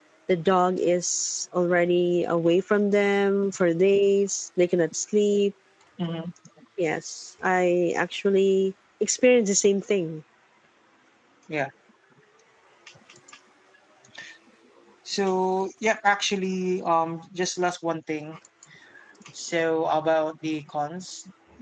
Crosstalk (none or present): none